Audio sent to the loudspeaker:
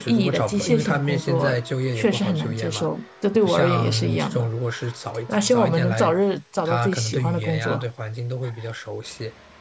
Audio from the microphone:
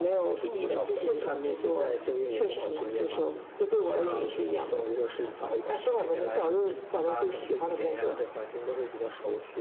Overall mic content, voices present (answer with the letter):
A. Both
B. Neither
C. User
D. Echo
D